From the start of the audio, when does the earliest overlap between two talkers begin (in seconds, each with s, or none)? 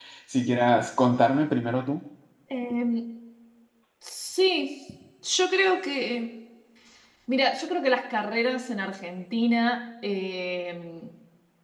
none